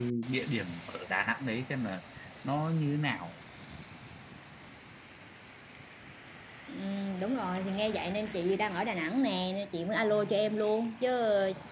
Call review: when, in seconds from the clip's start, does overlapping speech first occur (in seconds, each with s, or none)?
none